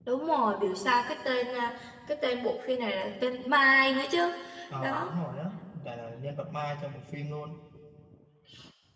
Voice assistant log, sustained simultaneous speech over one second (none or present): none